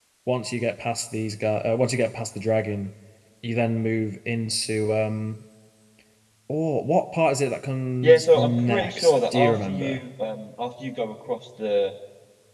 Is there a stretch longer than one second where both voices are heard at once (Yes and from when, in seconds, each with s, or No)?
Yes, from 8.0 s